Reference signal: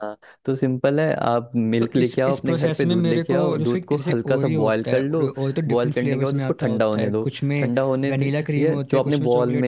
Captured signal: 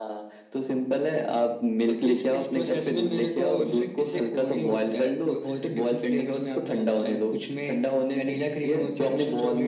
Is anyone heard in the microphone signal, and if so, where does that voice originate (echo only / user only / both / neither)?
echo only